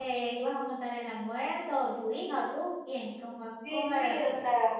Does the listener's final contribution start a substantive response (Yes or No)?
Yes